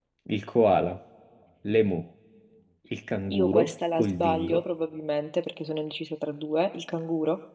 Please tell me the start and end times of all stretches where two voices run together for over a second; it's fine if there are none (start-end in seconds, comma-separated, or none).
3.3-4.6